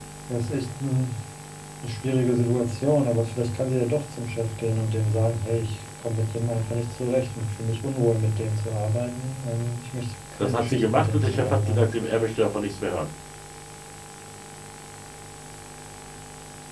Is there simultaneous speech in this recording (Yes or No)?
Yes